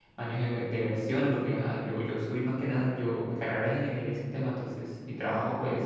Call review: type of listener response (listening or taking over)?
listening